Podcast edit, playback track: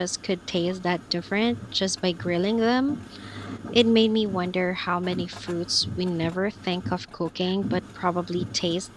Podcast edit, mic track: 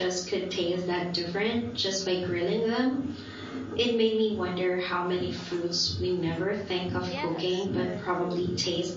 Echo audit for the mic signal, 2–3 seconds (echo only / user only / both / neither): echo only